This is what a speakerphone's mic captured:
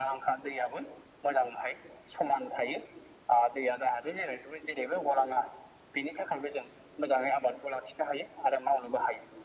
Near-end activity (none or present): none